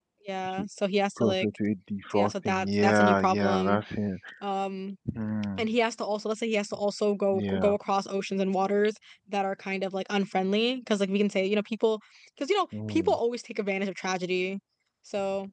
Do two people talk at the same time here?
Yes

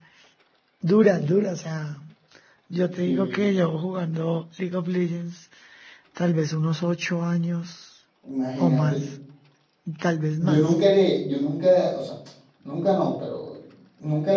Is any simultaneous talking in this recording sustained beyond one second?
No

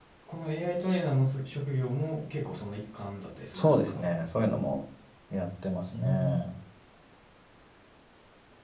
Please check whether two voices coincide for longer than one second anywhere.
No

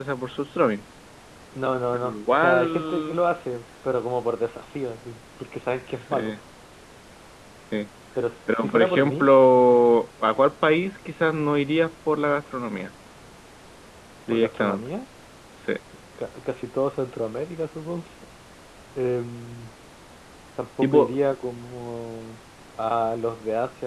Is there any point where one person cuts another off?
Yes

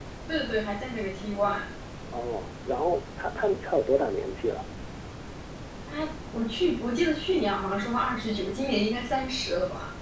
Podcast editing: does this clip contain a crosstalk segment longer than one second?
No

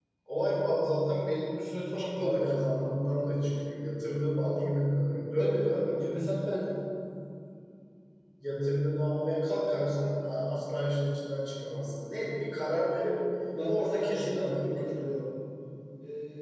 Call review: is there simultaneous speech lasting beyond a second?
Yes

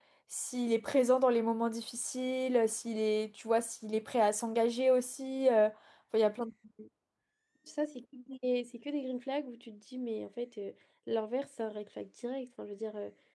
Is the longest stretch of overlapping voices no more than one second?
Yes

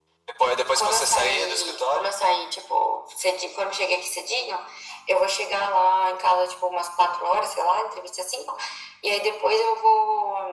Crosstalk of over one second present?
Yes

